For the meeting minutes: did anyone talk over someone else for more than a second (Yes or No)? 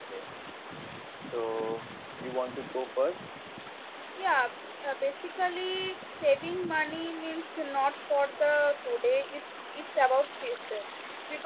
No